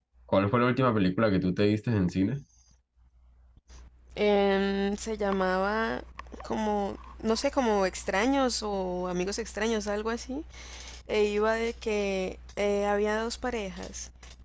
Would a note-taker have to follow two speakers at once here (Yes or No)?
No